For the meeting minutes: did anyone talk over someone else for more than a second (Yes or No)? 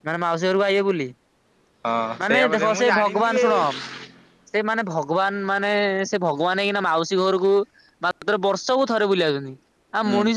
Yes